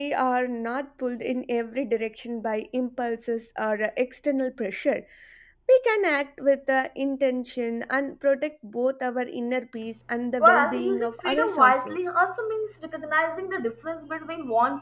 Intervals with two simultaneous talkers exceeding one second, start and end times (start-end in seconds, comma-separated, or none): 10.4-12.0